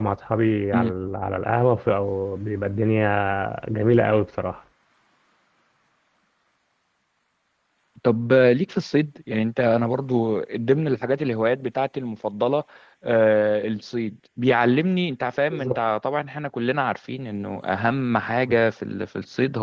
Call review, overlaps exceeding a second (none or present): none